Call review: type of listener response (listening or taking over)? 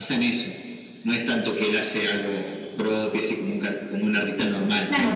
taking over